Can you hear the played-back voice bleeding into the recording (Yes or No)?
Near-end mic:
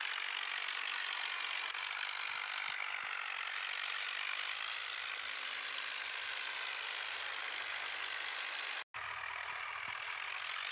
No